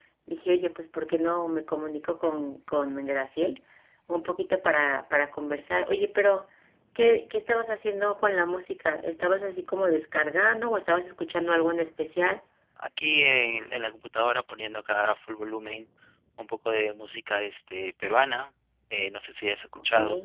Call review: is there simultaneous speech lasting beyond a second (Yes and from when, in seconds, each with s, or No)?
No